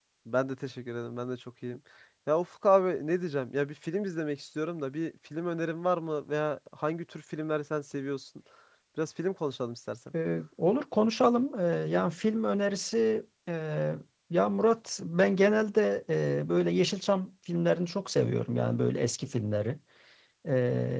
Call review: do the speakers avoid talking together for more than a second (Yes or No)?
Yes